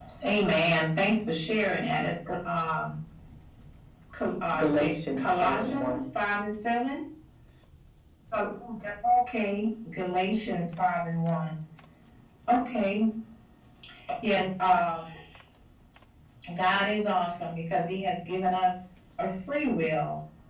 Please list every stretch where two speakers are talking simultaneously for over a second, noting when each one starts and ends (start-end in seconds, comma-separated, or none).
4.6-5.9